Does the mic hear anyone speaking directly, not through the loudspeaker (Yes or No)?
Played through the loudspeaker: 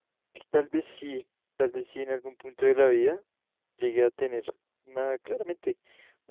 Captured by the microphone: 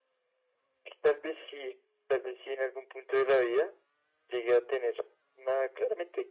No